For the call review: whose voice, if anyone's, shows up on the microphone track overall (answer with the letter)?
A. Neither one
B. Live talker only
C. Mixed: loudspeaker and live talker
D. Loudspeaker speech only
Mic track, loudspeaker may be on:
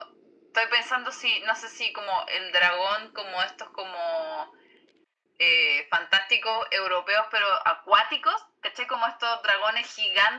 D